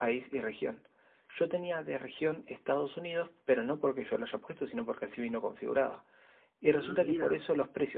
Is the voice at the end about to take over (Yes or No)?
No